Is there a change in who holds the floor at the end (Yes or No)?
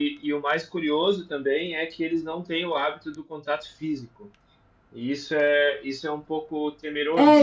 Yes